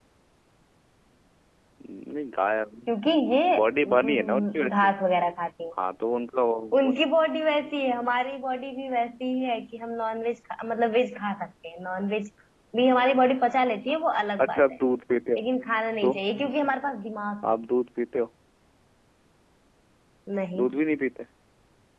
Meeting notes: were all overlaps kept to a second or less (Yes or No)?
No